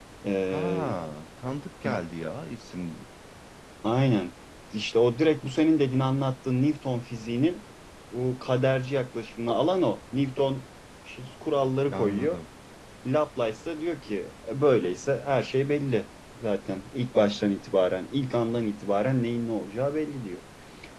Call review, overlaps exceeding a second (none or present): none